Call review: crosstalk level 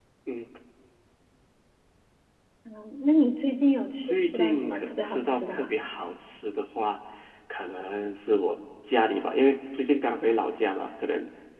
present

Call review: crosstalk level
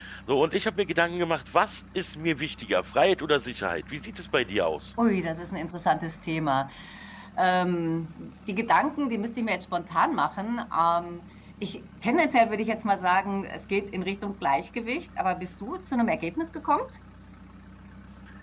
none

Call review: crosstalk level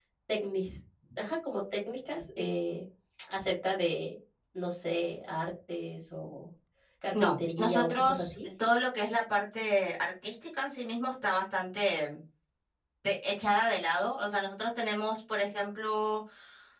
present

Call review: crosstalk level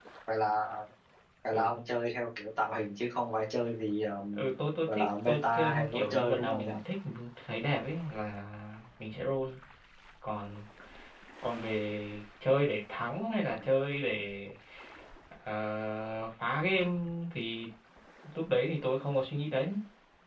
present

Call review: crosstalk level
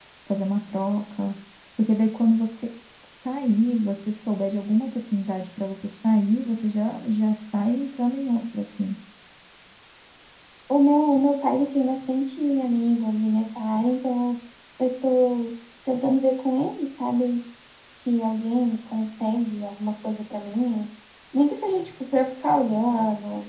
none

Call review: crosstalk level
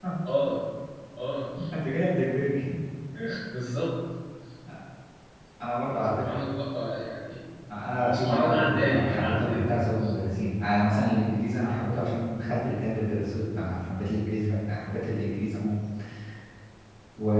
present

